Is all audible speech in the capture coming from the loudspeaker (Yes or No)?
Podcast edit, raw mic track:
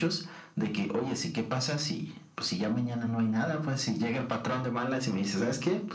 Yes